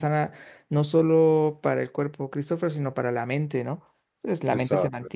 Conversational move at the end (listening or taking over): listening